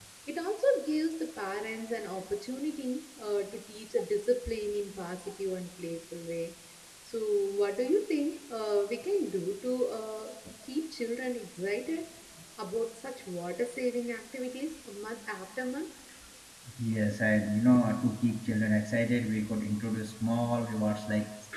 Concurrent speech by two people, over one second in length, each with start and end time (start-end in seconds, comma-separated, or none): none